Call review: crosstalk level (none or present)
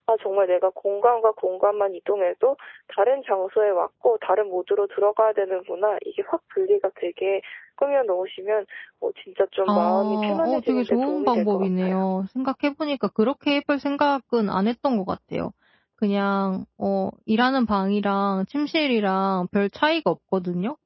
present